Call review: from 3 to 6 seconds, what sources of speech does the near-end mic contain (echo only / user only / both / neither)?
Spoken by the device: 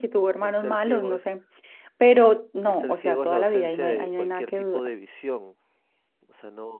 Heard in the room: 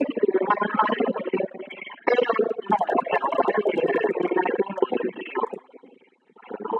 echo only